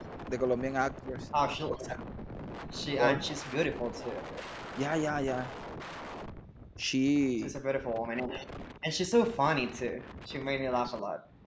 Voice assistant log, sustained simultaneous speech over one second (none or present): none